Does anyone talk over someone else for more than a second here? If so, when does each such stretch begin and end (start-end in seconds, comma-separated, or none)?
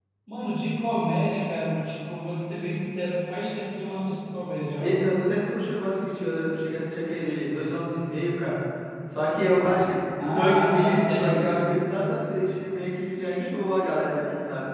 10.3-11.6